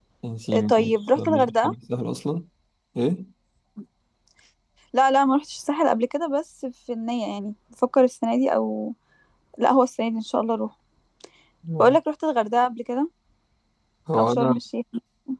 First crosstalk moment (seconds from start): 0.5 s

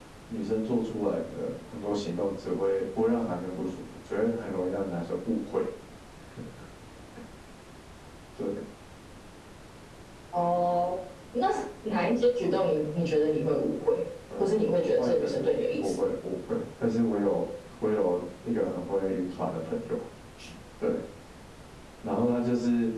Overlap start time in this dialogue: 14.3 s

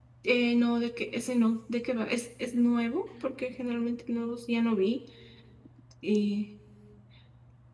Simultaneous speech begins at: none

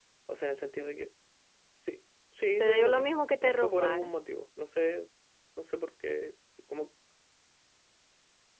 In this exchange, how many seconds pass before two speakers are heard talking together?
2.6 s

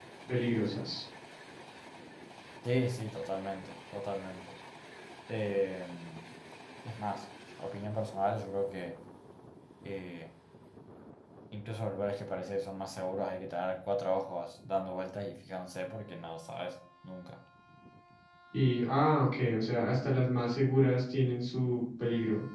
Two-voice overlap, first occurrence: none

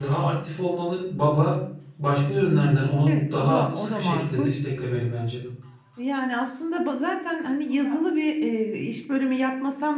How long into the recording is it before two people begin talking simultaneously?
3.1 s

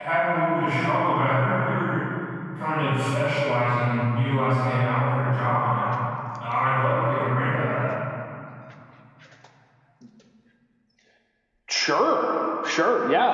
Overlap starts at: none

